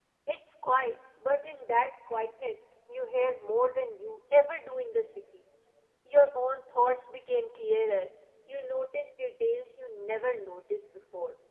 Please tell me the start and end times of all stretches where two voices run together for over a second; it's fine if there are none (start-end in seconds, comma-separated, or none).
none